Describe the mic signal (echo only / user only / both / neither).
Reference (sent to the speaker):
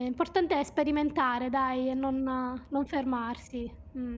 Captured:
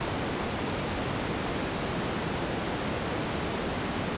neither